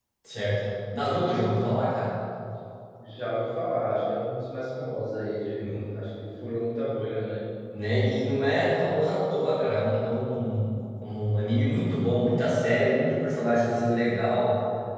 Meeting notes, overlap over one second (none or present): none